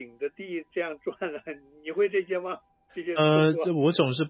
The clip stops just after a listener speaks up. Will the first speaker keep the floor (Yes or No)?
No